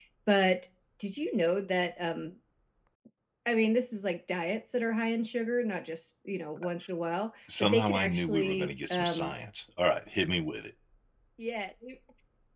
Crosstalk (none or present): present